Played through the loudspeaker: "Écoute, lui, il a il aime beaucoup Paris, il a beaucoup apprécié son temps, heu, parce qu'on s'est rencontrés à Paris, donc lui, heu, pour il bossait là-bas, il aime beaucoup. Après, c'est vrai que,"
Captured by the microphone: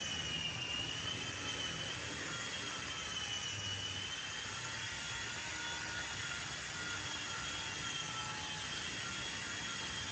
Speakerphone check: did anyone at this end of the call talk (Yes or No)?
No